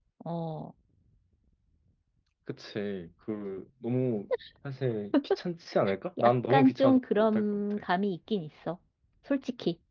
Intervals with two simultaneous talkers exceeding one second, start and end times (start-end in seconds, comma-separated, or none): 6.2-7.9